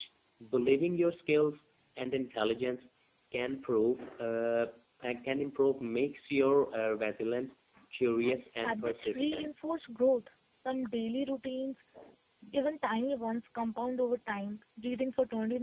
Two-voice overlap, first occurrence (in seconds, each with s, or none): 8.2 s